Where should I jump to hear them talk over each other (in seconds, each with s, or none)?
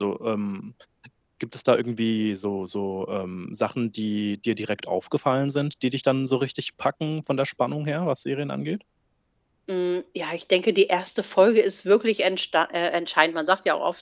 none